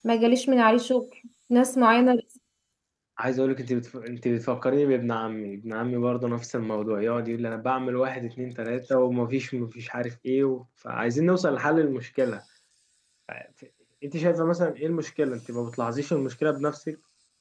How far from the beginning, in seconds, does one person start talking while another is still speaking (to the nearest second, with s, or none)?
none